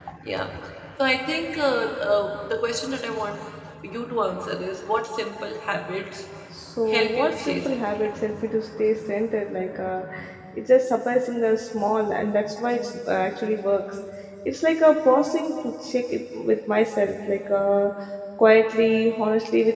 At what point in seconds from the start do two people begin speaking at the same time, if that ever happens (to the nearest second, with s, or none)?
7 s